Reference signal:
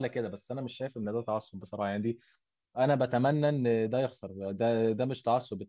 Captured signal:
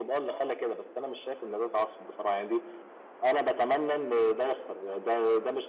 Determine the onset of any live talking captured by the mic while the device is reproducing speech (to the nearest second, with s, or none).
none